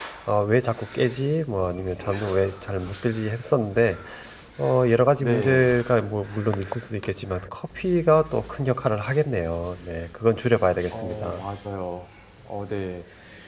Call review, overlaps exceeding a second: none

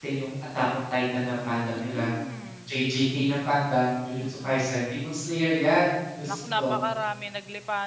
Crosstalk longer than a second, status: none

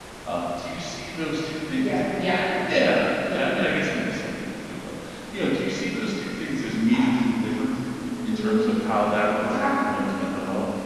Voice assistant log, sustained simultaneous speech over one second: present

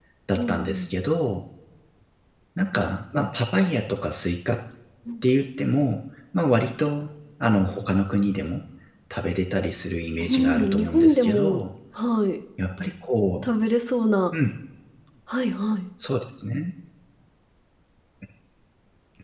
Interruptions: present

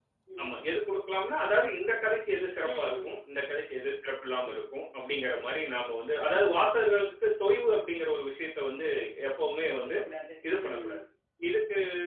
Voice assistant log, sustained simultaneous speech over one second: none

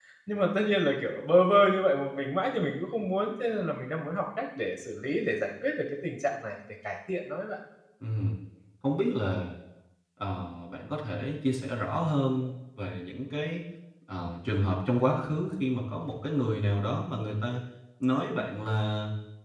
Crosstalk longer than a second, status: none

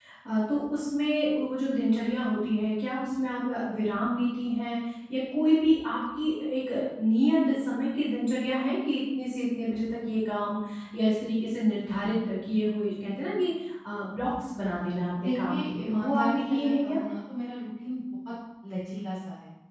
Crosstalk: present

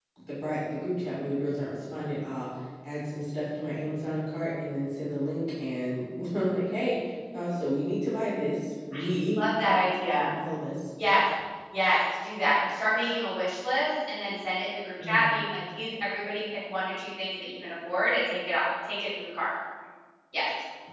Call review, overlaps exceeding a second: none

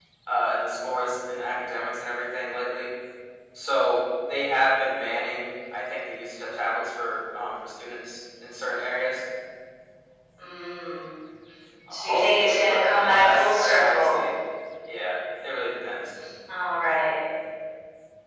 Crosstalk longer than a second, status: present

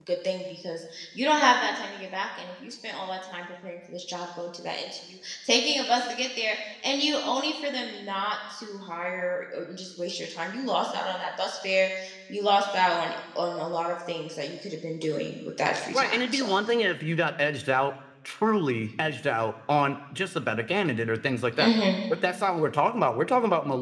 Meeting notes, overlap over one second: none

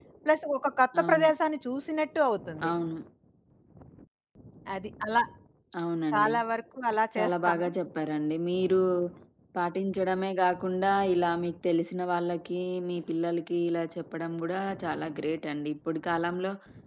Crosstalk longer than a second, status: none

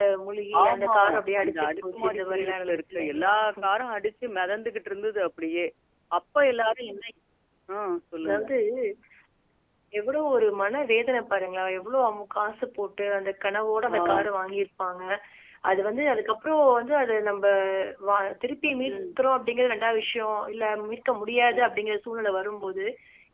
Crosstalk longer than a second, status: present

